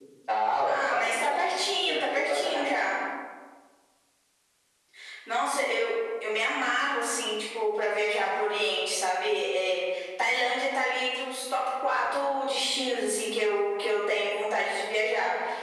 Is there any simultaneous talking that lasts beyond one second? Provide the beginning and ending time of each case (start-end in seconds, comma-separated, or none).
0.6-2.8